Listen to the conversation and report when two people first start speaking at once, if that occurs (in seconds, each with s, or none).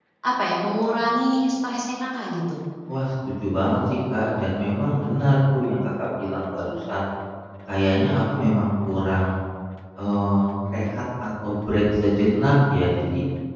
none